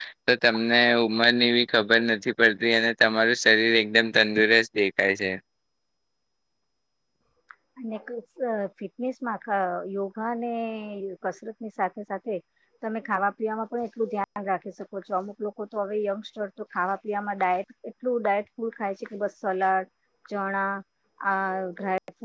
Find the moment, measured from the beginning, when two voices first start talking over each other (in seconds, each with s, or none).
none